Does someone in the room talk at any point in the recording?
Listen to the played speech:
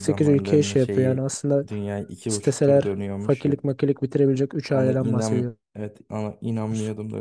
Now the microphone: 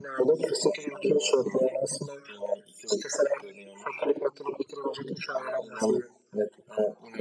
No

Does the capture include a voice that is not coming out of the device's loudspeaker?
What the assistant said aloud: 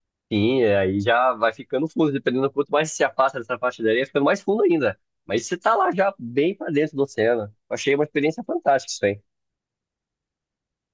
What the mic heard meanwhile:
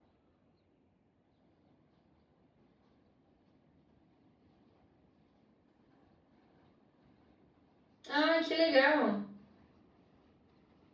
Yes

